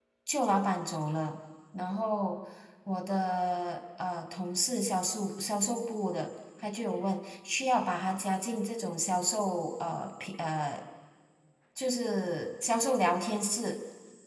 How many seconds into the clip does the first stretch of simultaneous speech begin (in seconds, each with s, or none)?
none